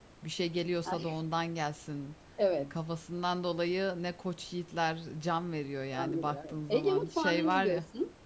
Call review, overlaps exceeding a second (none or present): present